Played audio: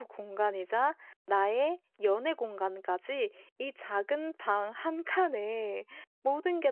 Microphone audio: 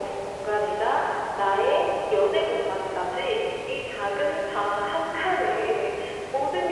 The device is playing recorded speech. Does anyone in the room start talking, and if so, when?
none

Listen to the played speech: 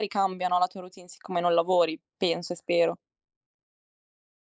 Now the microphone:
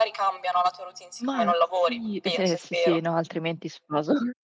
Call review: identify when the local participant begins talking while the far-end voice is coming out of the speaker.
1 s

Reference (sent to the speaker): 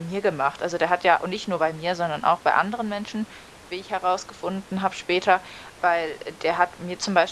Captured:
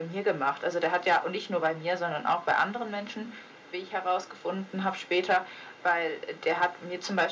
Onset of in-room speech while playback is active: none

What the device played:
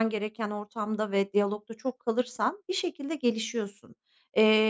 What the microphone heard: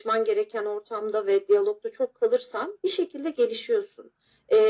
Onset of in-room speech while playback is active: none

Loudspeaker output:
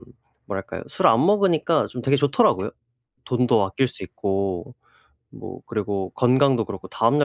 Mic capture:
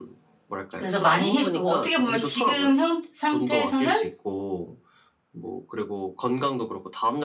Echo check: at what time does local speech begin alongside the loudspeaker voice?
1 s

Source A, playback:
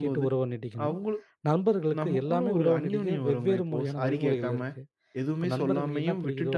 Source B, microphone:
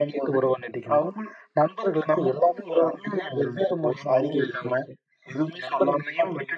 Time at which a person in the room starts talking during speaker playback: none

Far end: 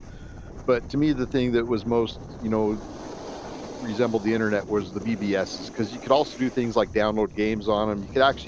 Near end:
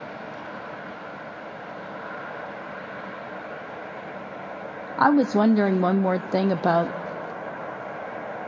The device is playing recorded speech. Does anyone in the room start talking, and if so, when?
5 s

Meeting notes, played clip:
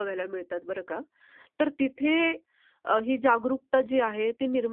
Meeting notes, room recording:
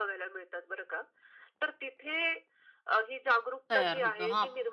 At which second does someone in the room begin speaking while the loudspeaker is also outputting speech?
4 s

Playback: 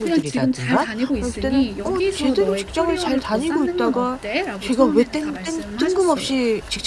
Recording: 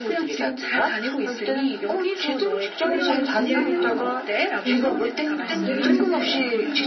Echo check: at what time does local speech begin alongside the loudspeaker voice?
3 s

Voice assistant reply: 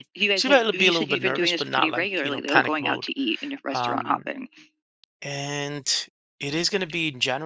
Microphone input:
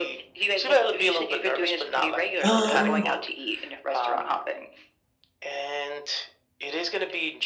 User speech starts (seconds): 2 s

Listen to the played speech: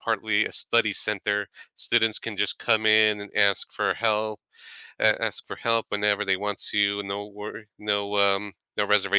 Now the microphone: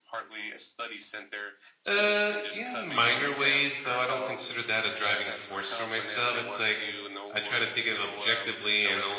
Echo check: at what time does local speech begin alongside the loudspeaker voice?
2 s

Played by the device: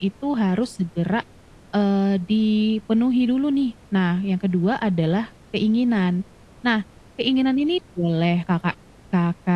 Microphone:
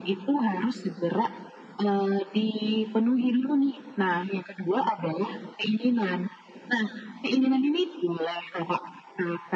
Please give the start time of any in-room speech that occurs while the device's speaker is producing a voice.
none

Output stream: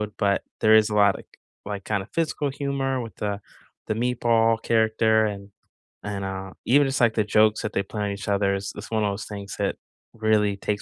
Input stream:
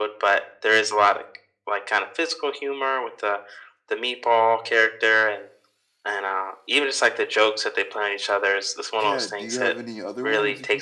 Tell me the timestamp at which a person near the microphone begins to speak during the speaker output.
9 s

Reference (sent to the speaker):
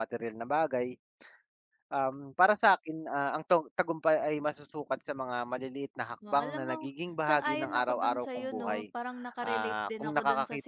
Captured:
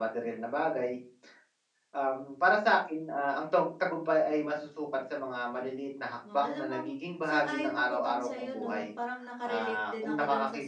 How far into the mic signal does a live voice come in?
none

